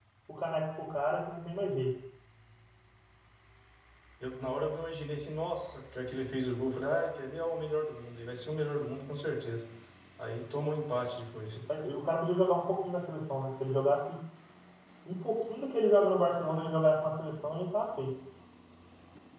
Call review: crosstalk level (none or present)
none